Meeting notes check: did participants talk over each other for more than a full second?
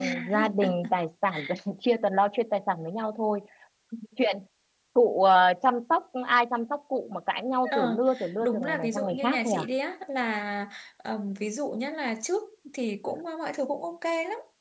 Yes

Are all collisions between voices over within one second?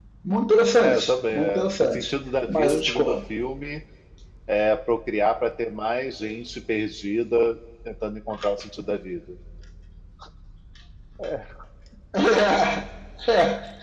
No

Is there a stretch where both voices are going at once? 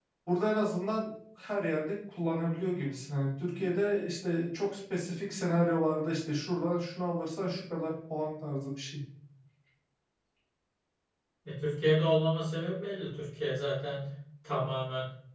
No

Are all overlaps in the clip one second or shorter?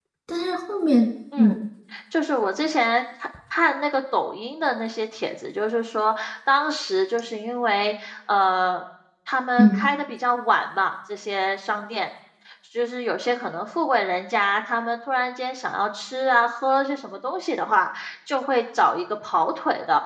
Yes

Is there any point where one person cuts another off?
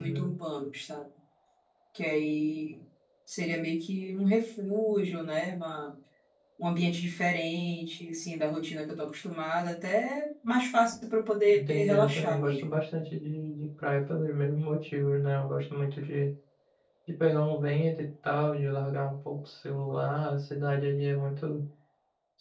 Yes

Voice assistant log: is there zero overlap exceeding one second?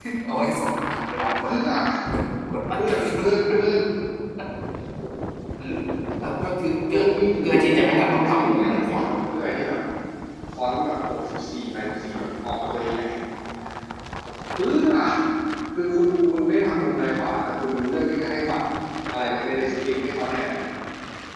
No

